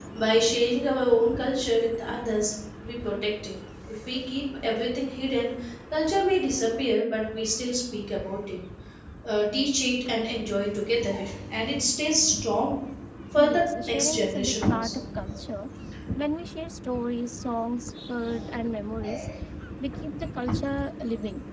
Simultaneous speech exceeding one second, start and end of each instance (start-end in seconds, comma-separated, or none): 13.3-15.0